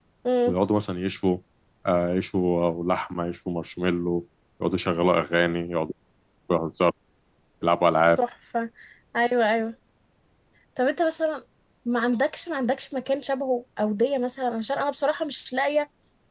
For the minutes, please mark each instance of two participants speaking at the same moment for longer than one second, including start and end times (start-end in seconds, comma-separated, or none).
none